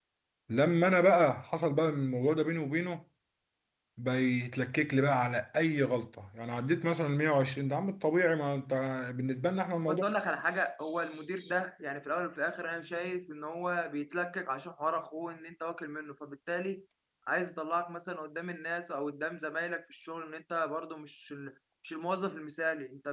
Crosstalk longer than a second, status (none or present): none